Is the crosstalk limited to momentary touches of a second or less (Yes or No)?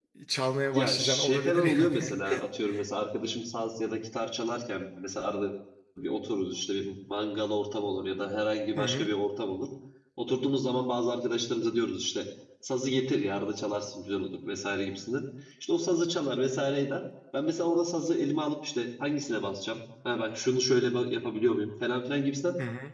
No